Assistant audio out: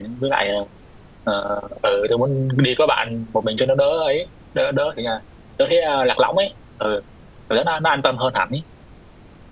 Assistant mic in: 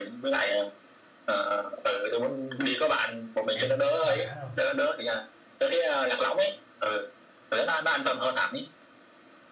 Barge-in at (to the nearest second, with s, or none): 4 s